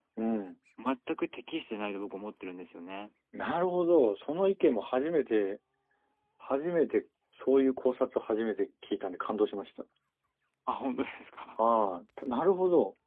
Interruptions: none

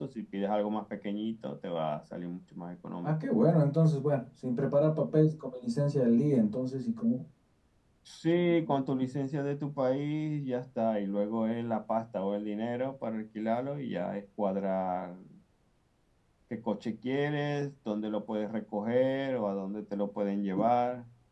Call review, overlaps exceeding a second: none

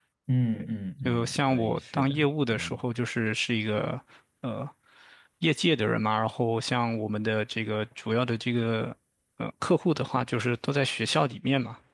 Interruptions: present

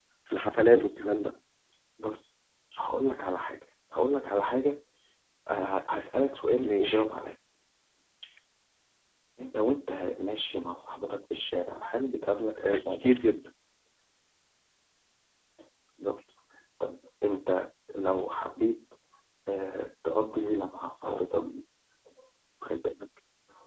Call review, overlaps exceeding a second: none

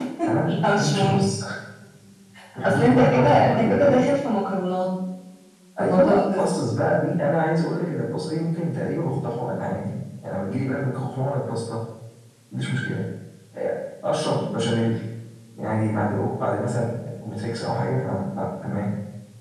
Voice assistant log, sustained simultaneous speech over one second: present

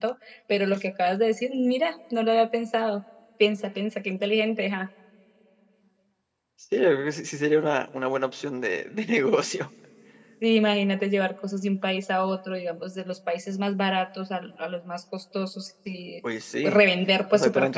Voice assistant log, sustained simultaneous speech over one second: none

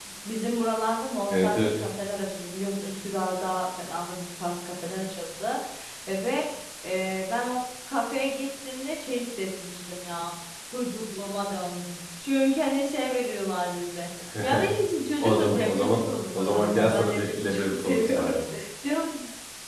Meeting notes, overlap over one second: present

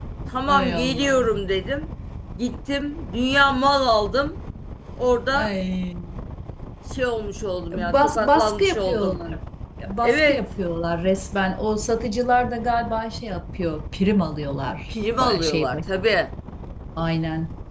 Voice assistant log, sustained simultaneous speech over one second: present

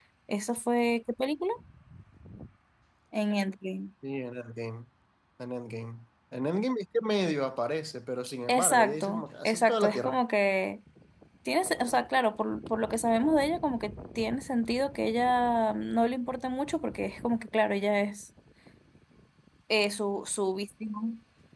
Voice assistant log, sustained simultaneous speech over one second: present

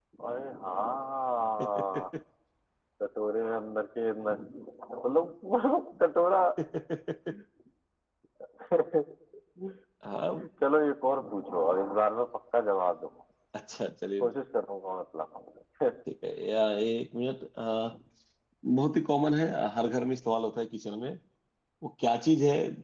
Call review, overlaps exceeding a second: none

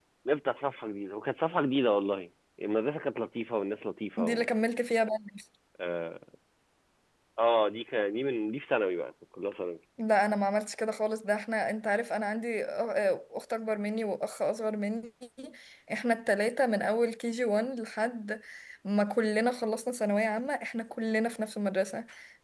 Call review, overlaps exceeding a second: none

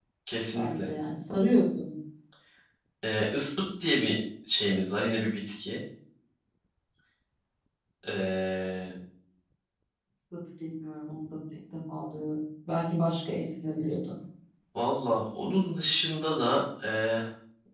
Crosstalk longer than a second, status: none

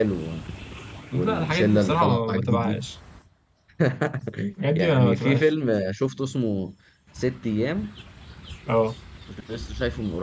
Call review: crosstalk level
present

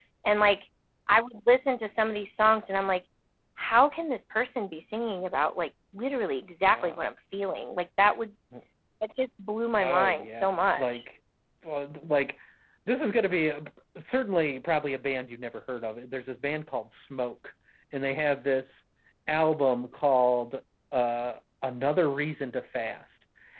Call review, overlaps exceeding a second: present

